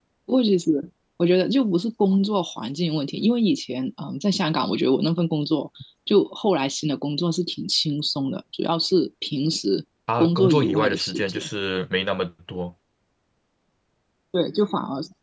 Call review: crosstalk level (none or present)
present